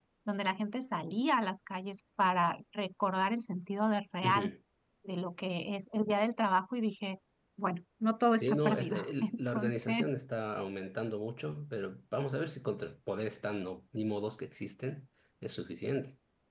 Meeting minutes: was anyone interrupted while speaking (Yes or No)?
Yes